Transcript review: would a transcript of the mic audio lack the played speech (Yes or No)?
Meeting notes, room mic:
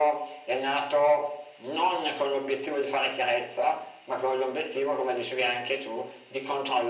No